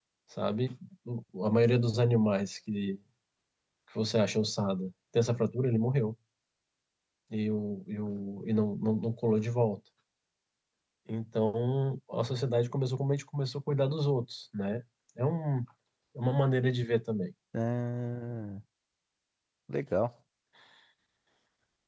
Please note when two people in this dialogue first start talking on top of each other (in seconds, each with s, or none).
none